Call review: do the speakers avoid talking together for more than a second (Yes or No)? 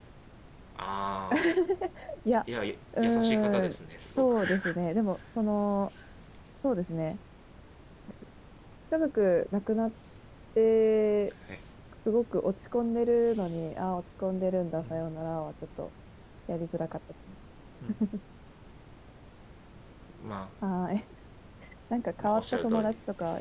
No